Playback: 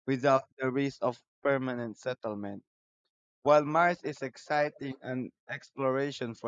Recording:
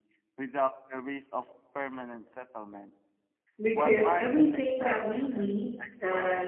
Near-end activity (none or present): present